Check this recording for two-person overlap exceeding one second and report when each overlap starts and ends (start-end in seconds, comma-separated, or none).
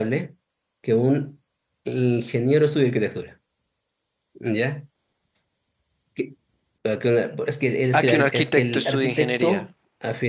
8.0-9.6